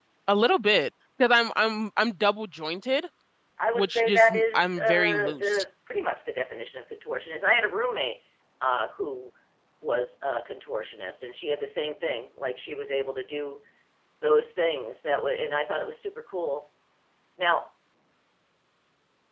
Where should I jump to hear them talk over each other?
3.8 s

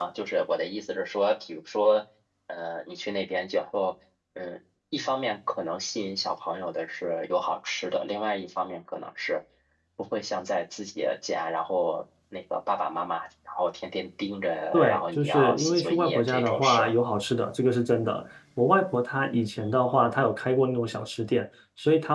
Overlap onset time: 14.7 s

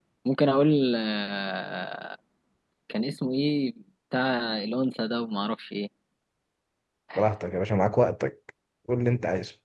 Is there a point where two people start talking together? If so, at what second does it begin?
none

